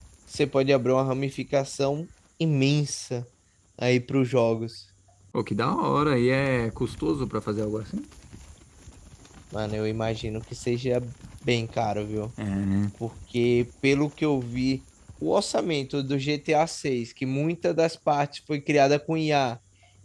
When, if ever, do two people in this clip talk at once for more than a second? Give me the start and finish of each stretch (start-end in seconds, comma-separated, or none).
none